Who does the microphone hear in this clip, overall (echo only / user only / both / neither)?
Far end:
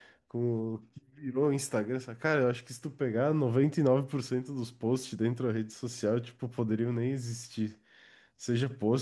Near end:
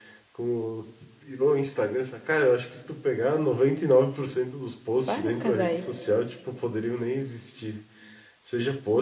both